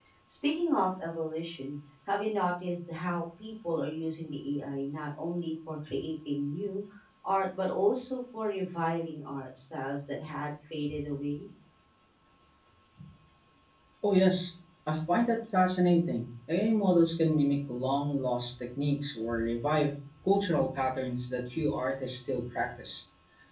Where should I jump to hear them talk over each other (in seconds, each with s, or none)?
none